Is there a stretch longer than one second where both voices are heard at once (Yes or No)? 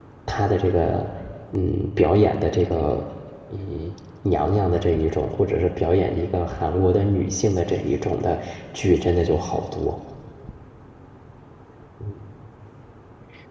No